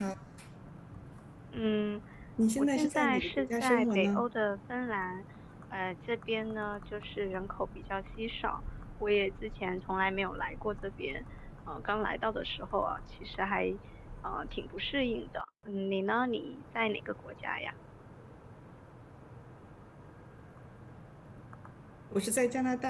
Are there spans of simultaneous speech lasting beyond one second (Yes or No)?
Yes